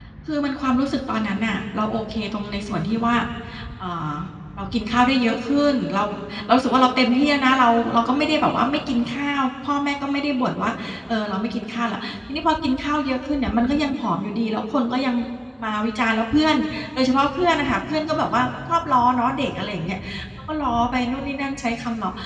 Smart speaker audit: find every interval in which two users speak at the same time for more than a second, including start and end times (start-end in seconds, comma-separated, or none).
none